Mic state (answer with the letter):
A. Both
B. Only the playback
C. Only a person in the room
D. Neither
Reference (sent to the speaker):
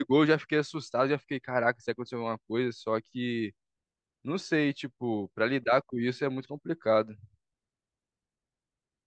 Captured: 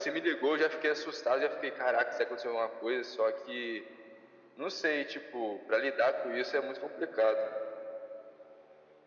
B